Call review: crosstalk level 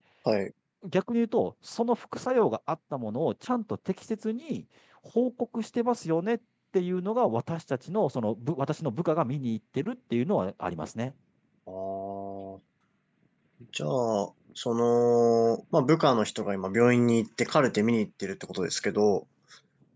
none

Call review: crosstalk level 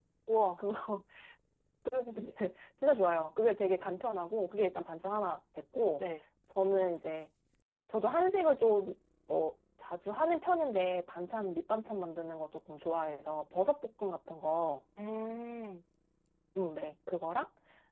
none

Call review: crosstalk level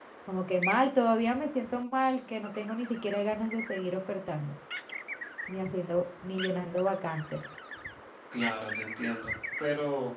none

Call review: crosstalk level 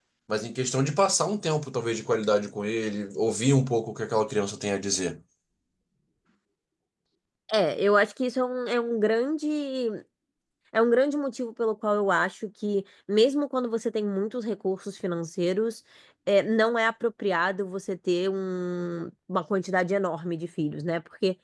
none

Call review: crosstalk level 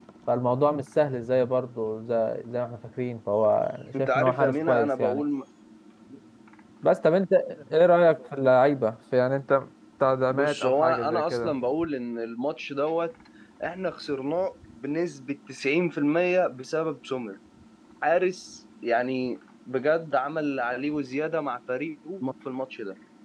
present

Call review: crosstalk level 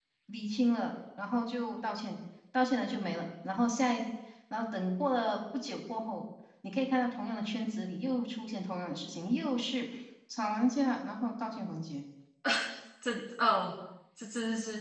none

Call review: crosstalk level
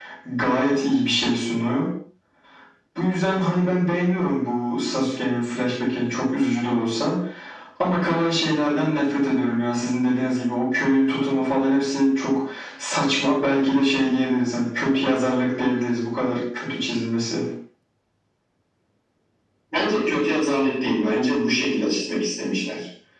none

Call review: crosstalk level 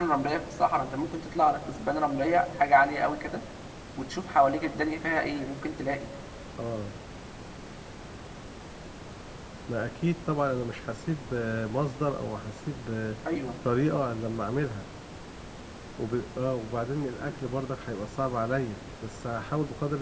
none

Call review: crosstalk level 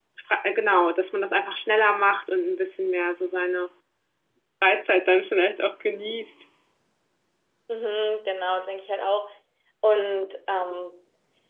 none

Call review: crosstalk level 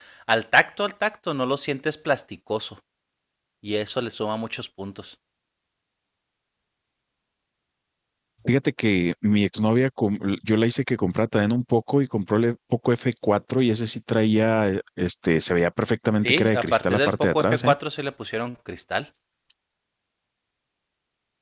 present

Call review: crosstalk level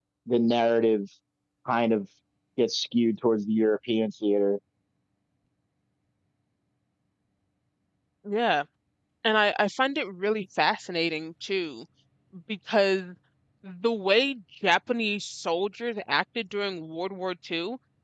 none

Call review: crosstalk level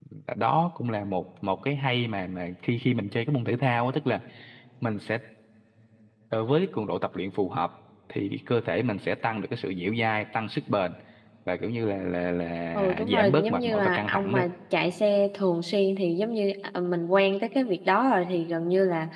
present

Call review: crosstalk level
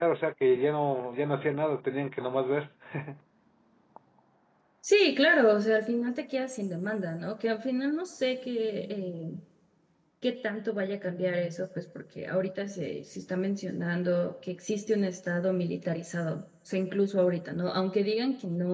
none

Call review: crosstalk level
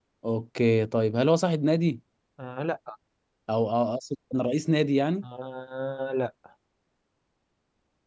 none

